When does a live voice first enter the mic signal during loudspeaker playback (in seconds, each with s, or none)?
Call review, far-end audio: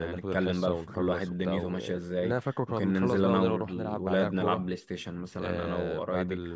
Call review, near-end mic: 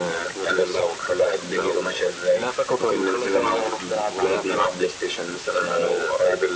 none